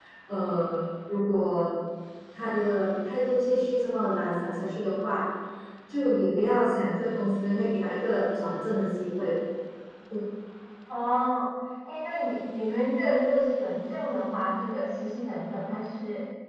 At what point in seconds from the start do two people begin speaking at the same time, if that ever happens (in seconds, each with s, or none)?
none